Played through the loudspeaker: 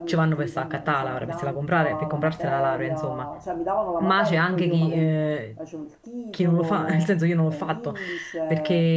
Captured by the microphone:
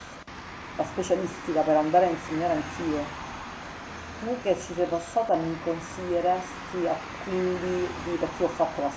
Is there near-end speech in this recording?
Yes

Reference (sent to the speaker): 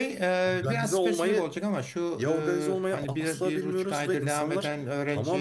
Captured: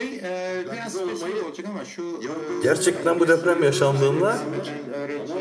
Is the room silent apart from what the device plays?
No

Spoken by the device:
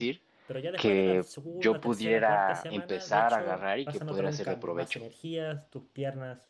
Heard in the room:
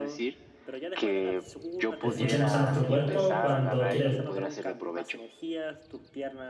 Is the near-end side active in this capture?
Yes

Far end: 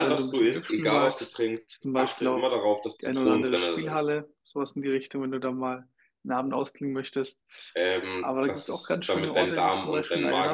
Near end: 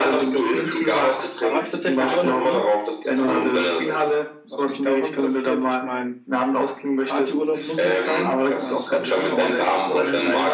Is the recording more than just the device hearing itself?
Yes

